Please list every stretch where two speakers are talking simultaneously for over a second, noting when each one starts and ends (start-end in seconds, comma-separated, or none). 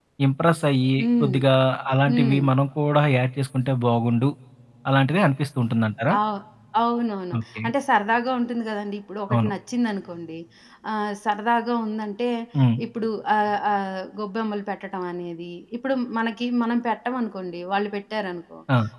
none